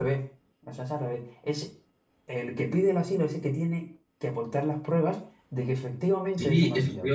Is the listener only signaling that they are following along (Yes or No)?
No